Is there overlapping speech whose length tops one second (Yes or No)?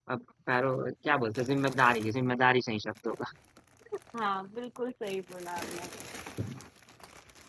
No